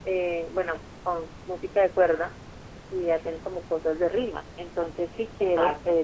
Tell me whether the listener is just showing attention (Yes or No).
Yes